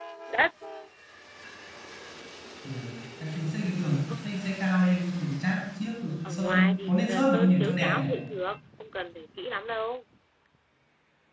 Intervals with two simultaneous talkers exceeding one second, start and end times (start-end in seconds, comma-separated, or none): 6.2-8.1